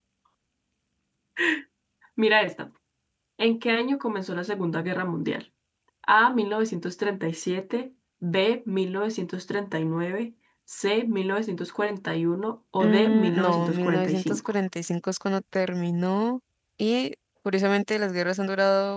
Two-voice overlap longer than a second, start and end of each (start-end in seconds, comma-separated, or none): 12.8-14.5